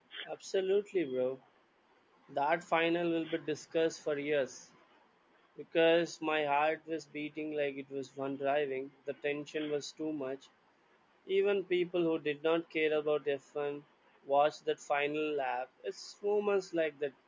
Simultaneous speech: No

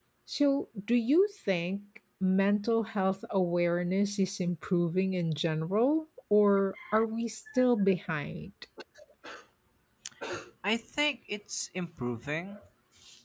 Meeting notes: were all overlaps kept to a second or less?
Yes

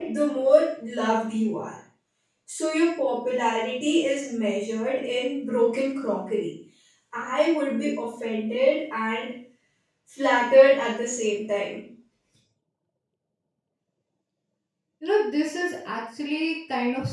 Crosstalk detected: No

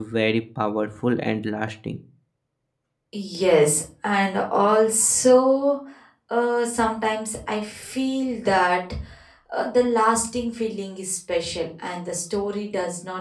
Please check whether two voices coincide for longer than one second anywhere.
No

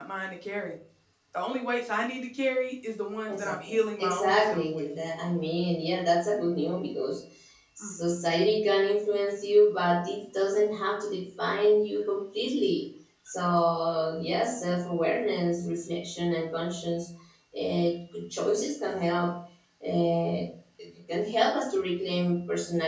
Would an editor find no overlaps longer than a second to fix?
No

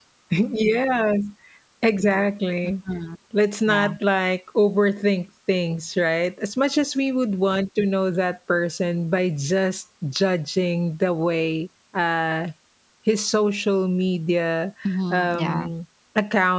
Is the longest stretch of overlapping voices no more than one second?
Yes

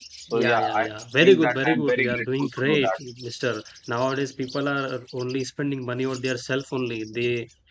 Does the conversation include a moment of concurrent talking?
Yes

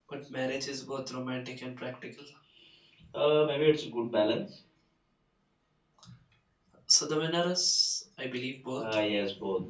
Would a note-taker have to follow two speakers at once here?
No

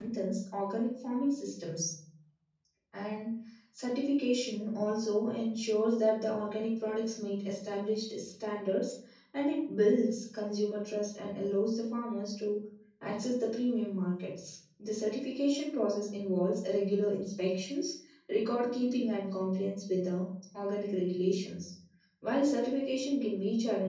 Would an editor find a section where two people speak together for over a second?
No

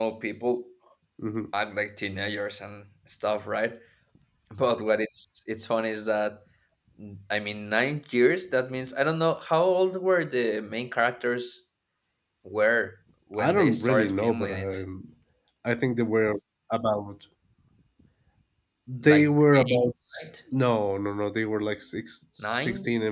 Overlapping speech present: Yes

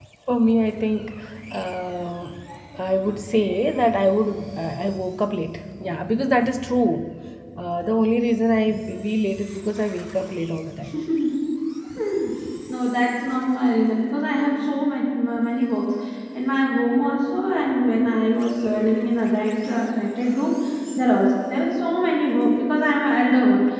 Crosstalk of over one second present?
No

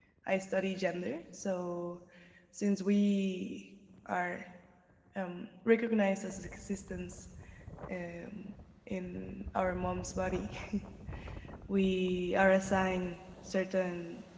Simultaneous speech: No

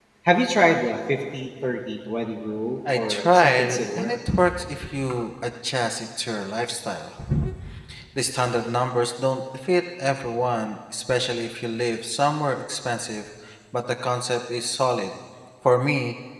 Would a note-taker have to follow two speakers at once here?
Yes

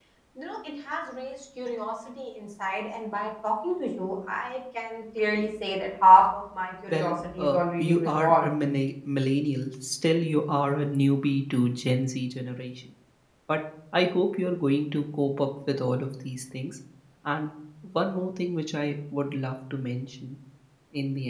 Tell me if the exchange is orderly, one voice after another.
No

